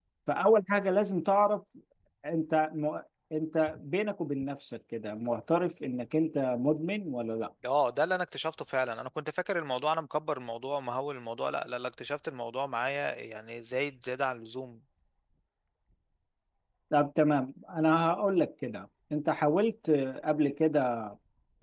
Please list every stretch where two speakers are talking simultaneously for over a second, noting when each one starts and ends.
none

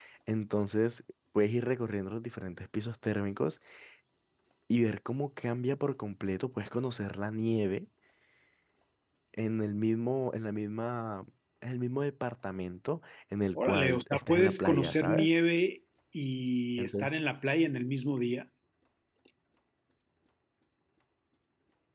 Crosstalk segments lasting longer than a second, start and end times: 13.6-15.3

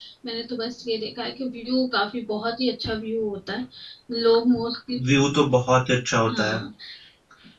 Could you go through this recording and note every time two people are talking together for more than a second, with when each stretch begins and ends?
none

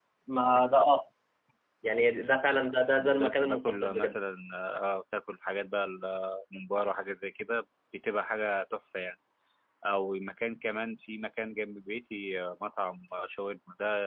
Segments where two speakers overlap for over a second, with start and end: 3.0-4.2

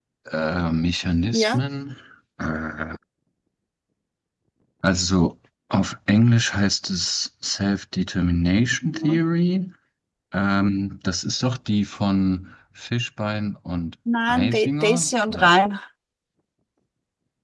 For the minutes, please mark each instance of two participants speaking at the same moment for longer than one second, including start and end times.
14.3-15.5

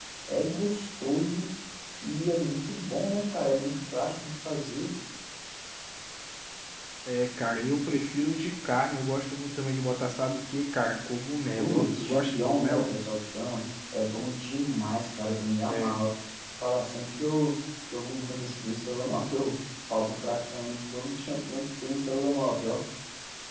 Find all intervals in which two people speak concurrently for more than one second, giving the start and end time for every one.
11.5-12.9

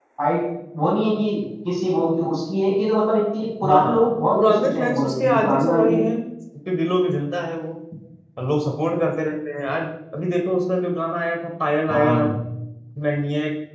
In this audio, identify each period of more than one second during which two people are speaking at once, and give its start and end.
3.6-6.0

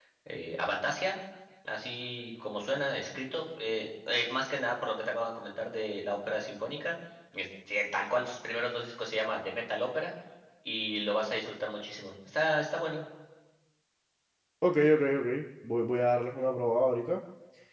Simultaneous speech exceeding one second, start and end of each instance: none

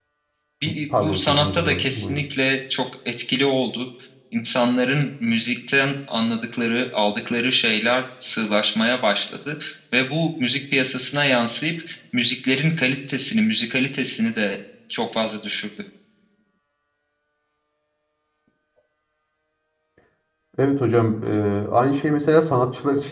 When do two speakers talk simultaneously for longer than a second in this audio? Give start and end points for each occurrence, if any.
1.0-2.2

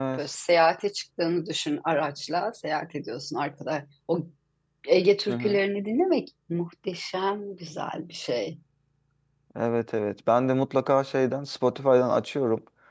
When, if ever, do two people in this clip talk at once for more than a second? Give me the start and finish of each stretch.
none

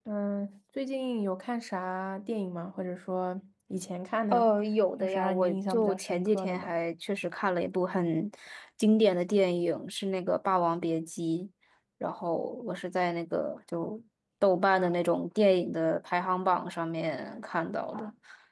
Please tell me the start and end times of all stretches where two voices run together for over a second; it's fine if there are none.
5.0-6.7

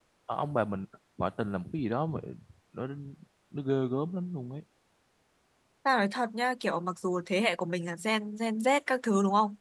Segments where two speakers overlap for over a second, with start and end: none

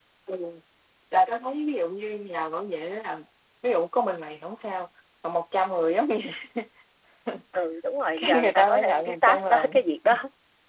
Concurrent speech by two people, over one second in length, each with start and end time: 8.2-9.8

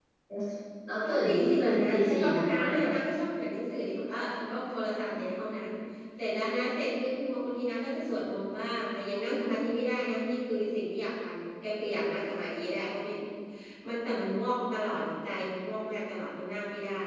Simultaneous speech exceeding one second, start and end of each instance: 1.0-2.9

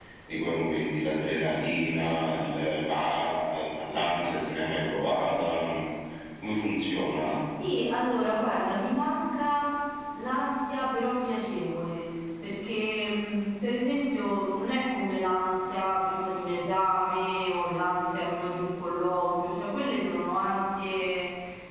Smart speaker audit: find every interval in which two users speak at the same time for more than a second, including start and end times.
none

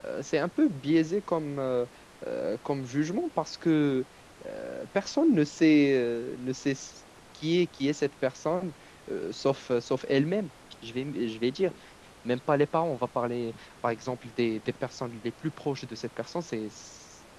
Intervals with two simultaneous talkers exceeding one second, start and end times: none

